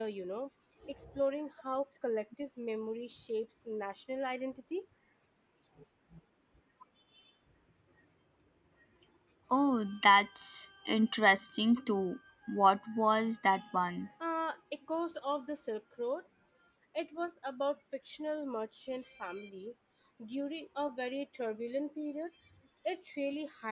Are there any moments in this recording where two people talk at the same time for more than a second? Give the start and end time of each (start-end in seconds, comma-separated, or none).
none